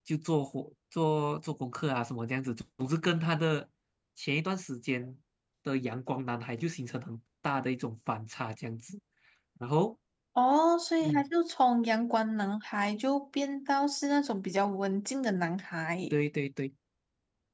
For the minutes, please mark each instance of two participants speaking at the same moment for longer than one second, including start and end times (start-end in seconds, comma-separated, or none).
none